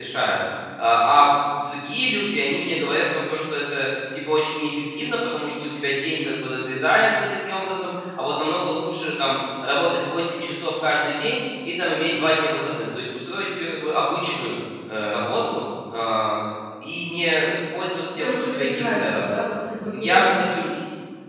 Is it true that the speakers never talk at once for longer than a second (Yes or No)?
No